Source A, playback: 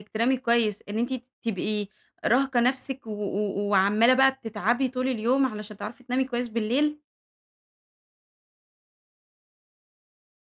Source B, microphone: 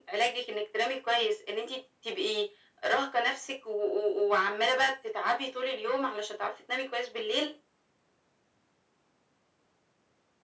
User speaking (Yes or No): No